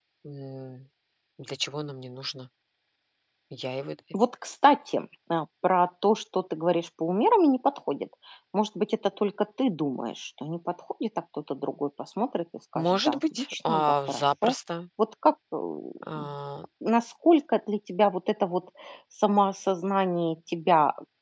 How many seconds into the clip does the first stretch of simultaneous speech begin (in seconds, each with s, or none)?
12.8 s